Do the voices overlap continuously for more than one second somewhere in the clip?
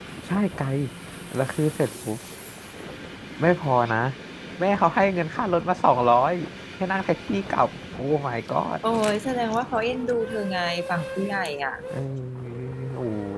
No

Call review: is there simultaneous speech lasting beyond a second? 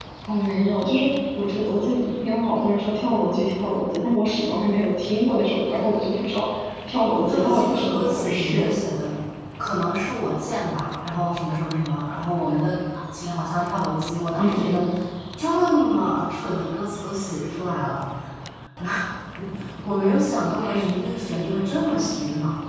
Yes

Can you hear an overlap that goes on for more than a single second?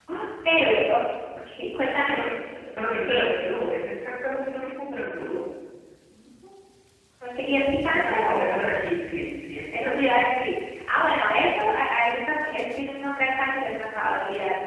Yes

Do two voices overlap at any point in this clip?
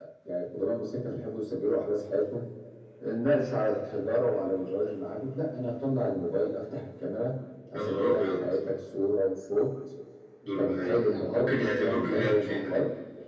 Yes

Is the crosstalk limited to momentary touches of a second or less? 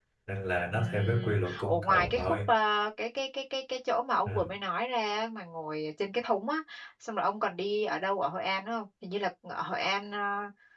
No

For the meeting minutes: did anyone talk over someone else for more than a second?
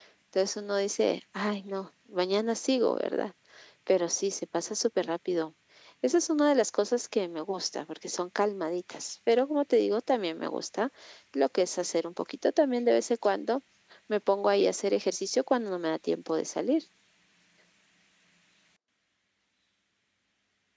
No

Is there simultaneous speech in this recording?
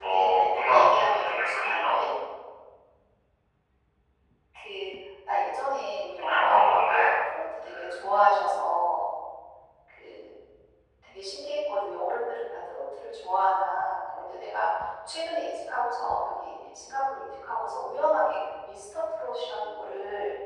Yes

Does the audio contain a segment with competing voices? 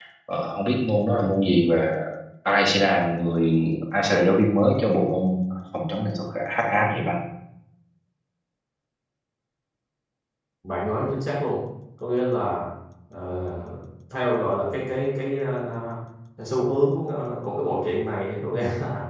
No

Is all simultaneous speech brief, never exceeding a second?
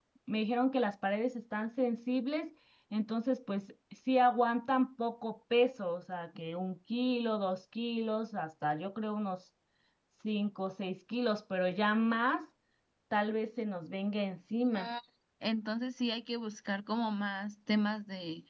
Yes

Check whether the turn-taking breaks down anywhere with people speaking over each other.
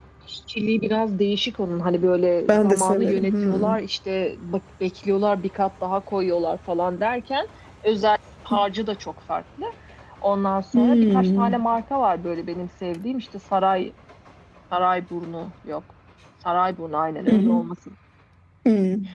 Yes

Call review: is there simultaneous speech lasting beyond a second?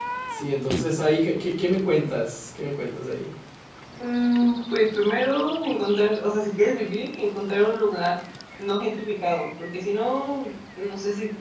No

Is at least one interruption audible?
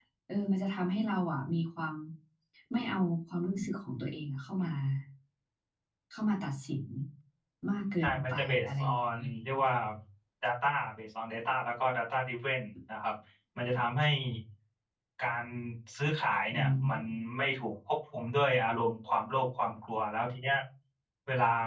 Yes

